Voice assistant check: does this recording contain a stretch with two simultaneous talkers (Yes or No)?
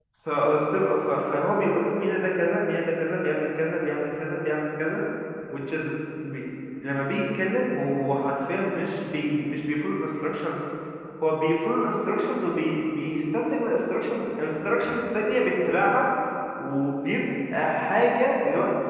No